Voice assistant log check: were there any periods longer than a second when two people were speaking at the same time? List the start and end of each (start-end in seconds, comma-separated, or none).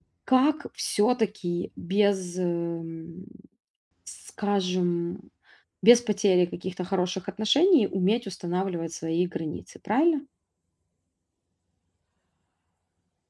none